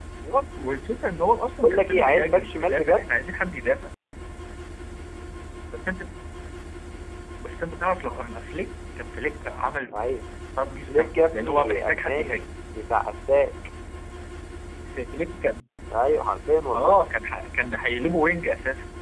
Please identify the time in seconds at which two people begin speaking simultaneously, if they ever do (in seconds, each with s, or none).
1.6 s